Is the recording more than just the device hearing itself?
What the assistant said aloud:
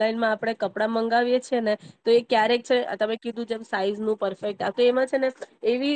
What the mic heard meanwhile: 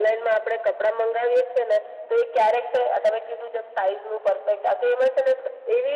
No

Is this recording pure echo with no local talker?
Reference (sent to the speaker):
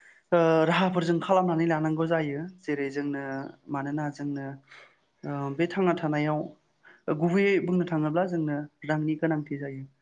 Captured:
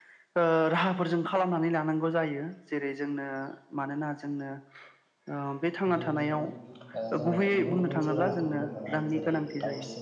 No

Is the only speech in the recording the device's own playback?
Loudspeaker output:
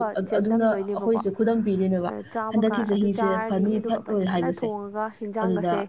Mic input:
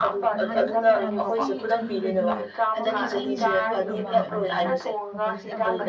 No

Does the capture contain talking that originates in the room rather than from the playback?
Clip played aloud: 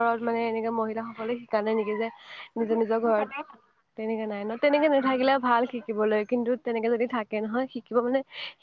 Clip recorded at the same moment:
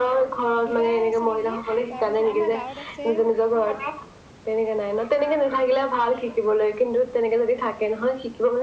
Yes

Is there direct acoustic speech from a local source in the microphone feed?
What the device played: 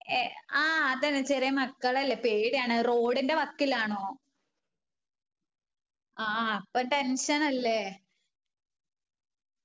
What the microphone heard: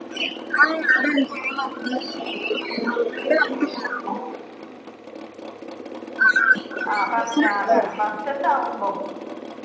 Yes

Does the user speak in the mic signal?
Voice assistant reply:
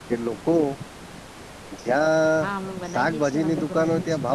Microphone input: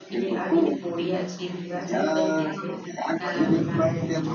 Yes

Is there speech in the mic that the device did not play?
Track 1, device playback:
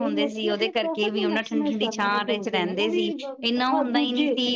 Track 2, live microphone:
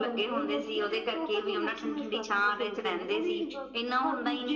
No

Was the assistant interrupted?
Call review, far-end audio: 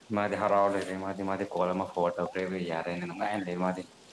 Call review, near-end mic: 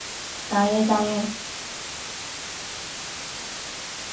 Yes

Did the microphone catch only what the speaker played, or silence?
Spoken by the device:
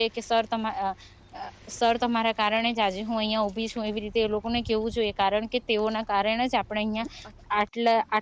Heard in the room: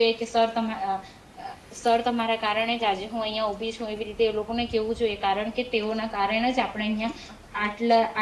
Yes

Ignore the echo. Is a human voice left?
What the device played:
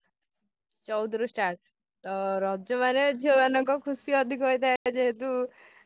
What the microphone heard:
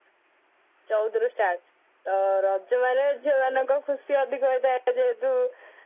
No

